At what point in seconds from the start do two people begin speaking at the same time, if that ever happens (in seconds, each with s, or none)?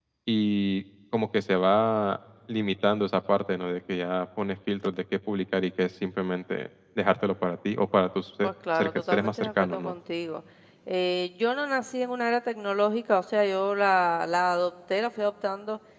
8.4 s